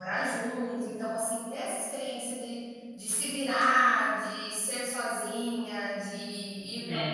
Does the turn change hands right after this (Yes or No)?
No